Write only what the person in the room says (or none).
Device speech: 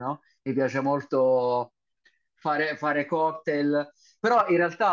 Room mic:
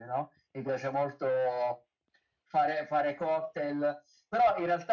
none